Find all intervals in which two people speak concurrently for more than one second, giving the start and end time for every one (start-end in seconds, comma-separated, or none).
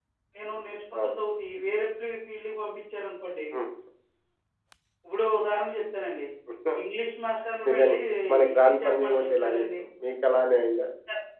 8.4-9.8